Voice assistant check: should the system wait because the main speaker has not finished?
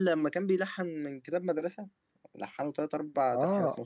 No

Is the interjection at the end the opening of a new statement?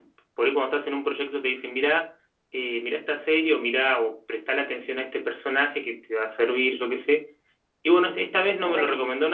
No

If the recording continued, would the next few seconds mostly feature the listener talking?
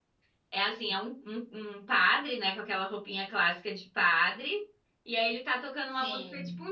No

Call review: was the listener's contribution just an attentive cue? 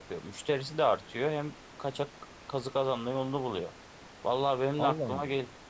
Yes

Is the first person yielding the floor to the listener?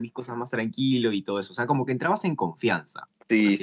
Yes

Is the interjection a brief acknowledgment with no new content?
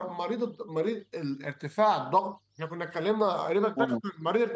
No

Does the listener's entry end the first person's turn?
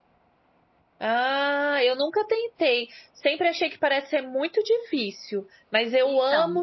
No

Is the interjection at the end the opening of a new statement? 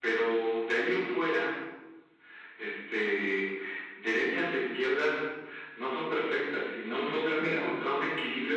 No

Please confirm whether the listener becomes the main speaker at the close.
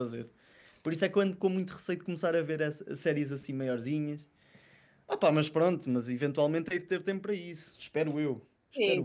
Yes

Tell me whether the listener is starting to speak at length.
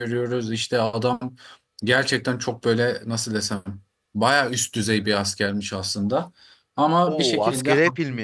Yes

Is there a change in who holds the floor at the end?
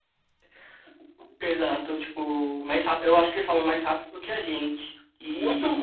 Yes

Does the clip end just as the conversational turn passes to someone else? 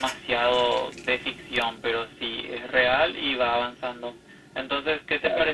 No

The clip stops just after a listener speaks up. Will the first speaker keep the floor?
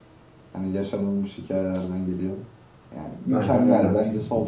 Yes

